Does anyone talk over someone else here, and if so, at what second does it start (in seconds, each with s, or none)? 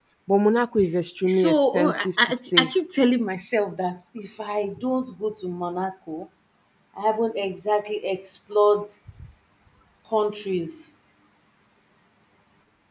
1.3 s